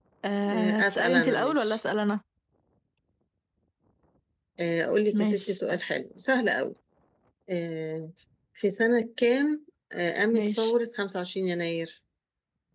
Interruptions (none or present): present